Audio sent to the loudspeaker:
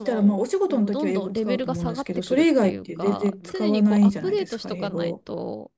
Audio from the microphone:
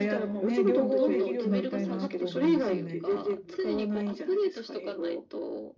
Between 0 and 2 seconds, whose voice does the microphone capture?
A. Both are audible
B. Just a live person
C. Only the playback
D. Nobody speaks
A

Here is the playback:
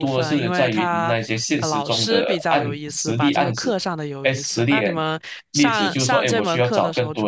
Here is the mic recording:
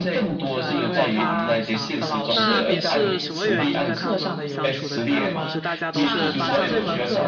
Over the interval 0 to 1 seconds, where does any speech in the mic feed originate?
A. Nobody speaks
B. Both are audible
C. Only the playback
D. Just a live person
B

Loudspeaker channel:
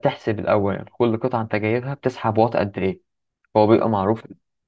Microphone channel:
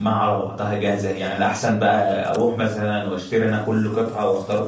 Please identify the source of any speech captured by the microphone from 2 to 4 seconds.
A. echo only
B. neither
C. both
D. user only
D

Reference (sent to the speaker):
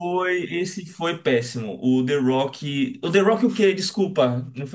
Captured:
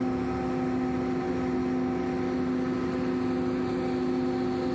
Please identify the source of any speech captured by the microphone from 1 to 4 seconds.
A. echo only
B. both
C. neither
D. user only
C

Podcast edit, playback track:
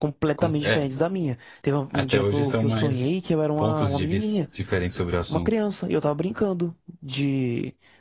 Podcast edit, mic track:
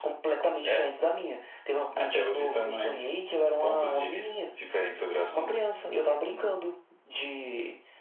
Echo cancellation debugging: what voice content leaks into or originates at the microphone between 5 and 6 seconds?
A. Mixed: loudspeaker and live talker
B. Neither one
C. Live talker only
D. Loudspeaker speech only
D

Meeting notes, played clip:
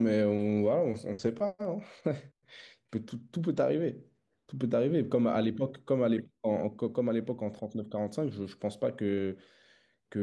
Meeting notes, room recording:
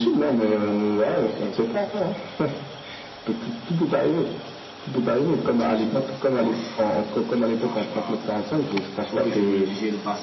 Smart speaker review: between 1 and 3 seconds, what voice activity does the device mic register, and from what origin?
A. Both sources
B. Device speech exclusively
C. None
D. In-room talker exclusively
B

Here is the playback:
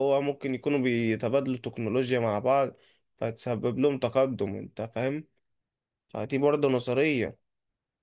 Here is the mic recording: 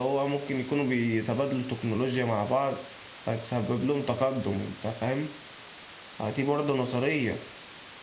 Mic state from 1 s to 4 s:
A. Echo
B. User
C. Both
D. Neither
A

